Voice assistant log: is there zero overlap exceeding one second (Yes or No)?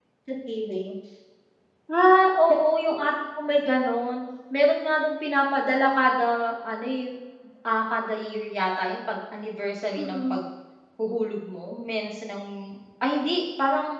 Yes